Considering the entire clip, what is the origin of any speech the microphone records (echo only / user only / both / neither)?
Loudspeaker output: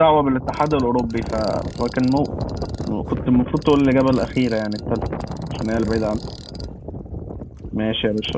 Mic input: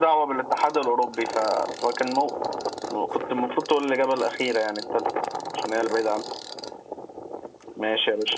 echo only